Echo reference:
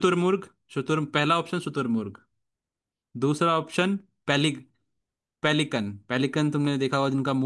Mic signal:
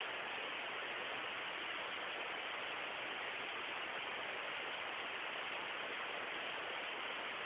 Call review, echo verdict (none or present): none